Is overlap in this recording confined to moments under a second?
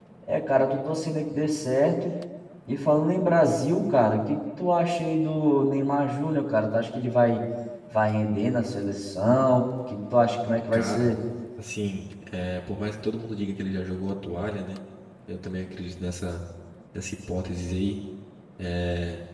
Yes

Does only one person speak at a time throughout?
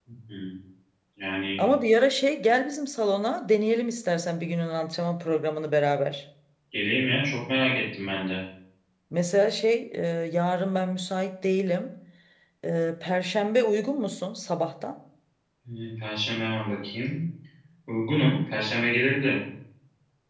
Yes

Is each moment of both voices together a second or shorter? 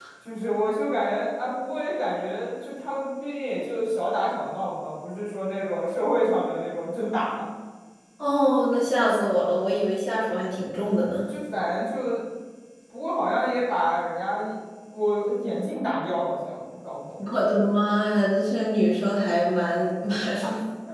Yes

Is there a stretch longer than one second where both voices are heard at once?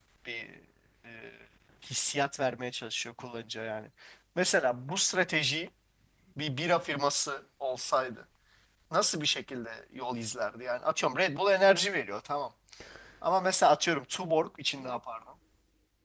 No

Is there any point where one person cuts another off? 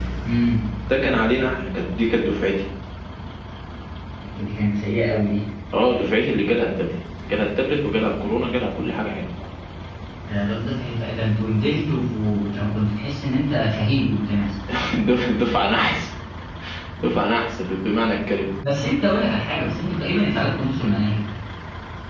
No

